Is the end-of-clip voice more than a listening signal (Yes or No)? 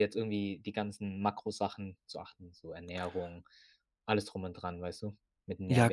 Yes